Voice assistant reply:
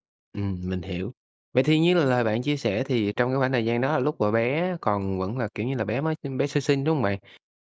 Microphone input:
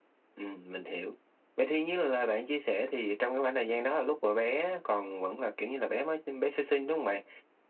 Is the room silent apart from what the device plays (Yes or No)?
Yes